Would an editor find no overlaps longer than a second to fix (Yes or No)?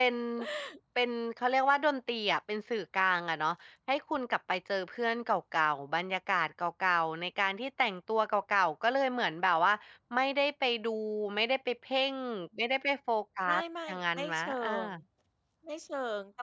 No